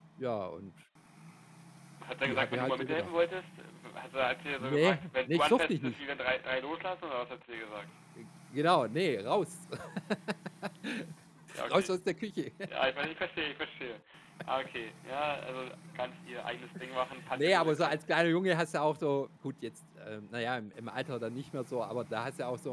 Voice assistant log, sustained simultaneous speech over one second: present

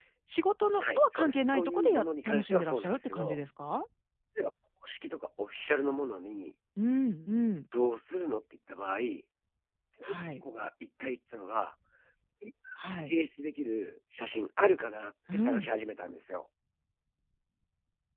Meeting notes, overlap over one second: present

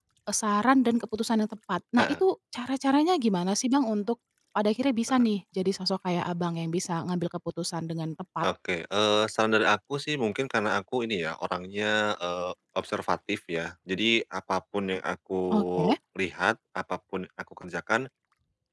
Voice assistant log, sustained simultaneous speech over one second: none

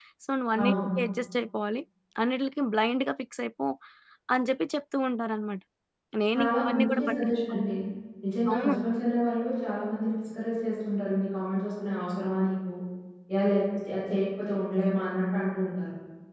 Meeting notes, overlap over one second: present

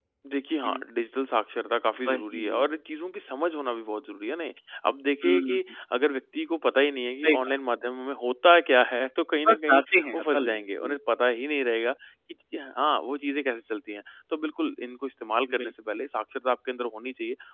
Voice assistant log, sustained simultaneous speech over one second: present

